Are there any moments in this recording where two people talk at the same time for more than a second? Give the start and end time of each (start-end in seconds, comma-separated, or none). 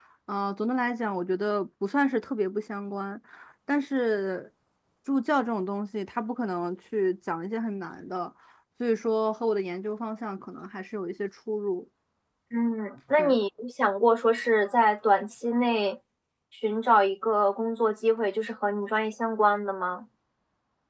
none